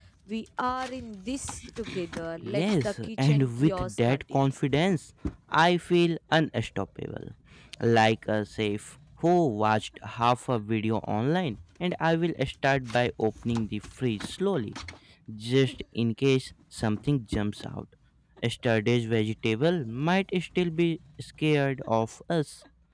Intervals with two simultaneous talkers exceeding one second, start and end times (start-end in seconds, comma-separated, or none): 2.4-4.6